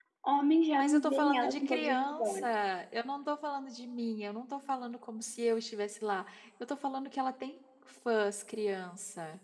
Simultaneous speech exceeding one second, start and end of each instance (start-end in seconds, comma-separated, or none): 0.7-2.4